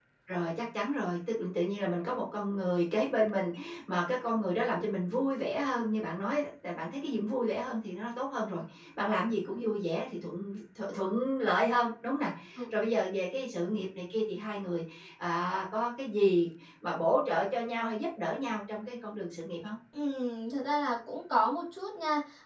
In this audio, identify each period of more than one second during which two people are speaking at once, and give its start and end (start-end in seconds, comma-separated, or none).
none